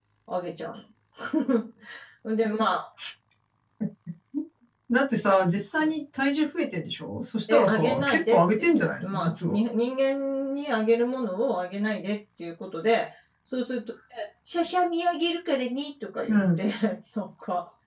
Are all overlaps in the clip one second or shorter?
No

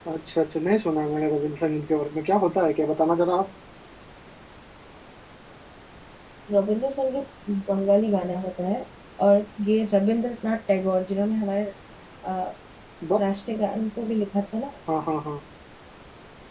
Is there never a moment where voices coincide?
Yes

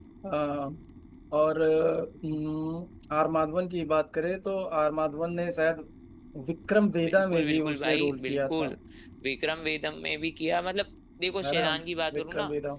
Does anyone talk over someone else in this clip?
Yes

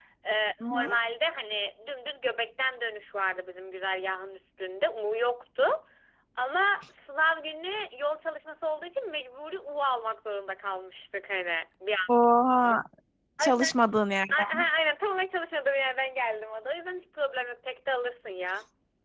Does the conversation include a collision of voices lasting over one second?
No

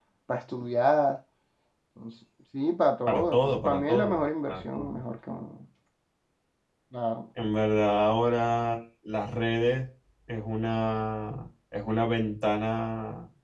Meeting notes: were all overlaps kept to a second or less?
No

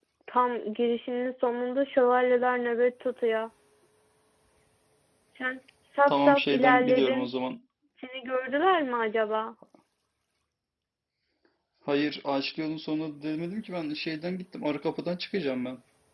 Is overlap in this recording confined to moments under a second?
No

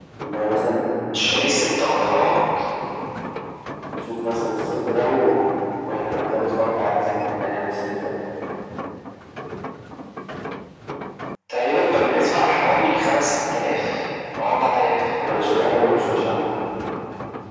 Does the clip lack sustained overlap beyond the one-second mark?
Yes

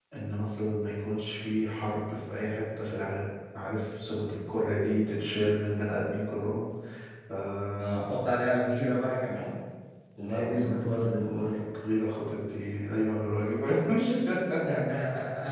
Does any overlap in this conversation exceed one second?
Yes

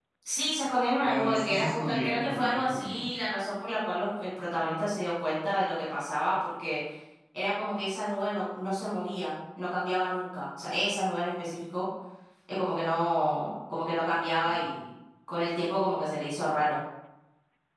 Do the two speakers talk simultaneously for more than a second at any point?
Yes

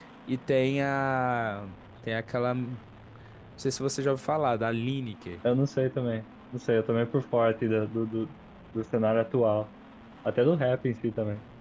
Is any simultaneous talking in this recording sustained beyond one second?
No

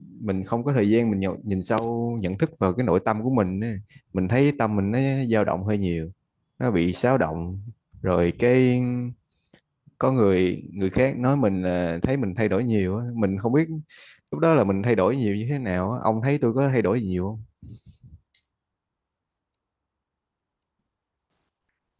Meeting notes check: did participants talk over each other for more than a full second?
No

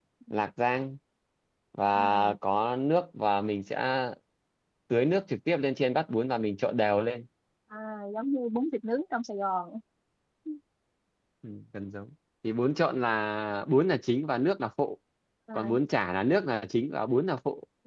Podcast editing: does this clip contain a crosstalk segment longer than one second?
No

